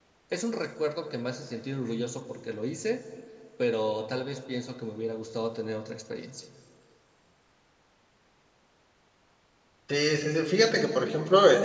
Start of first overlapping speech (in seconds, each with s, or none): none